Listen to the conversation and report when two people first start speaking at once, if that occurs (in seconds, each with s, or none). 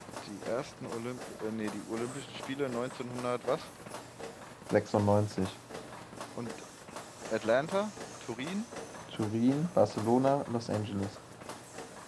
none